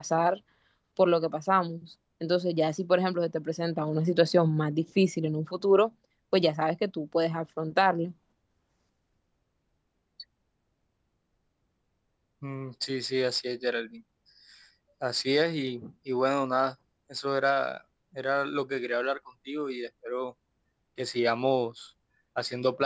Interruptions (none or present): none